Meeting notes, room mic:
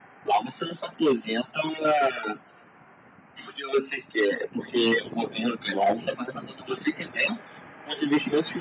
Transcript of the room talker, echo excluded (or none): none